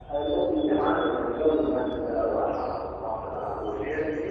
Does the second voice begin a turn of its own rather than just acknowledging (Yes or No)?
Yes